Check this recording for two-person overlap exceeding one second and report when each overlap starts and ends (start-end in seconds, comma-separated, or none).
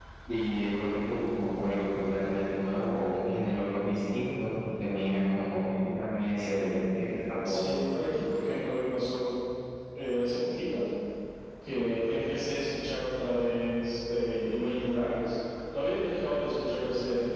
none